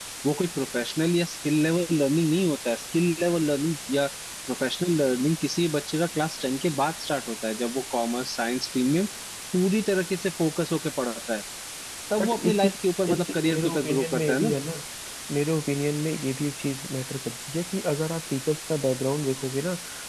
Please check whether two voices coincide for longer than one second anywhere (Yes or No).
Yes